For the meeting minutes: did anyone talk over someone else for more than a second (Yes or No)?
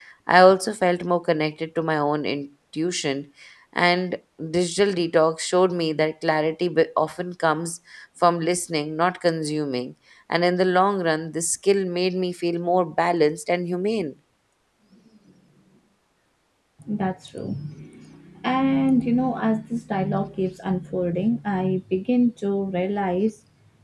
No